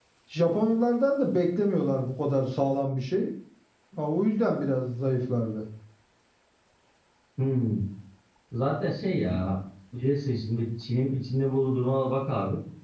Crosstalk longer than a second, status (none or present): none